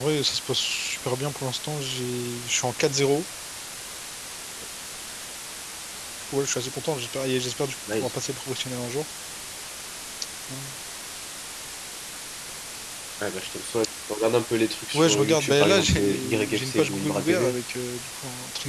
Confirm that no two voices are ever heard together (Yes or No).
No